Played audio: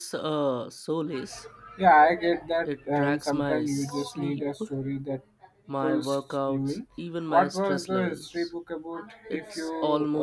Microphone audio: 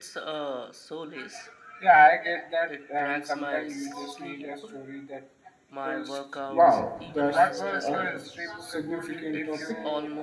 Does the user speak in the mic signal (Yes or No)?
Yes